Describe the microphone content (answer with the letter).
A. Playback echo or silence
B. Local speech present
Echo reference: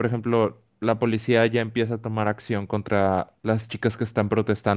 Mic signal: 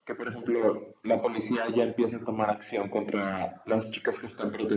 A